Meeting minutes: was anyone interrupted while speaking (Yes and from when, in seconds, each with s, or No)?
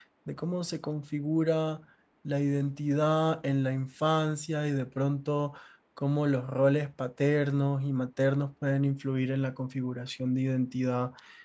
No